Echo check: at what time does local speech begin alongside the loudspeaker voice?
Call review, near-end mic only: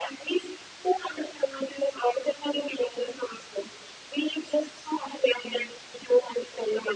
none

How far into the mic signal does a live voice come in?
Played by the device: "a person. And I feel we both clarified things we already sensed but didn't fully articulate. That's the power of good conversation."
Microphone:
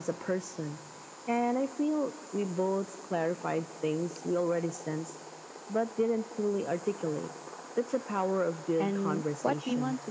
8.8 s

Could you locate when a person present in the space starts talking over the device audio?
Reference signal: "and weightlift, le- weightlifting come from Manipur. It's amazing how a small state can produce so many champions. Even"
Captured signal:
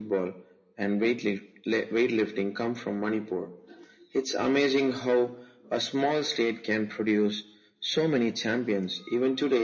none

